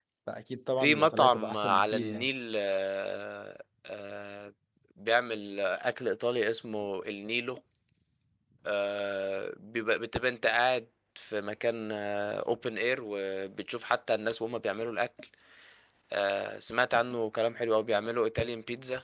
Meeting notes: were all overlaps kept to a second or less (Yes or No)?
No